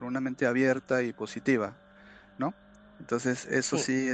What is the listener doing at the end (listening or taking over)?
listening